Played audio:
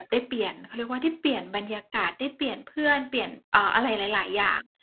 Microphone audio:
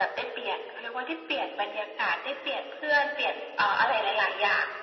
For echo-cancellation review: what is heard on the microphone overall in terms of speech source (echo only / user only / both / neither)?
echo only